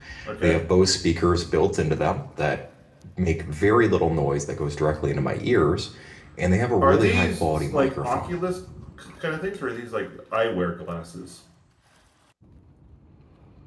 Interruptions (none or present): present